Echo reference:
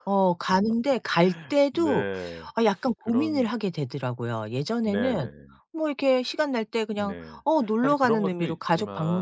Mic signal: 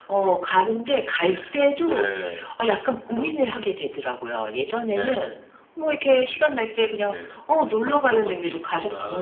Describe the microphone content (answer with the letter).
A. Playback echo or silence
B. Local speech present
A